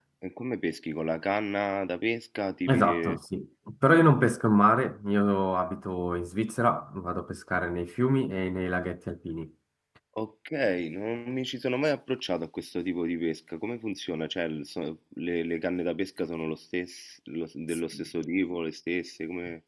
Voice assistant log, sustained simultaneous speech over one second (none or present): none